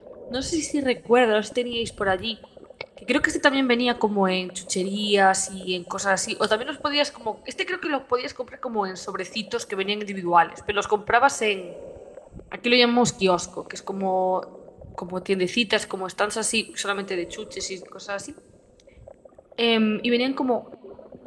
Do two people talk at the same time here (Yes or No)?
No